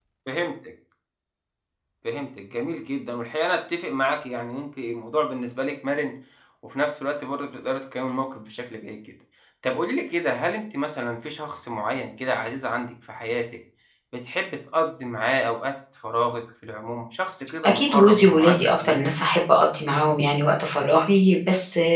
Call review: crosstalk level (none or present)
present